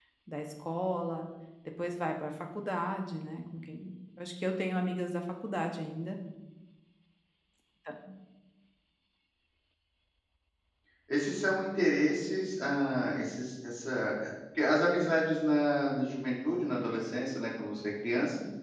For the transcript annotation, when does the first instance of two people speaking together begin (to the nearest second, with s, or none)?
none